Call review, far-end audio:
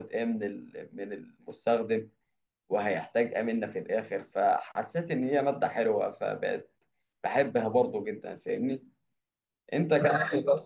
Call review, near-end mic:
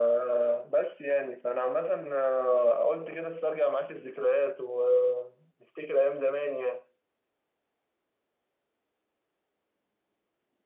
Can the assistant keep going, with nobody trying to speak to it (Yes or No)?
No